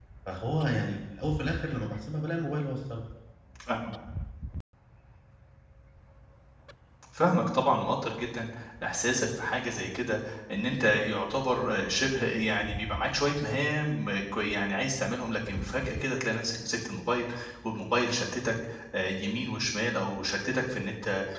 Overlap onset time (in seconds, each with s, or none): none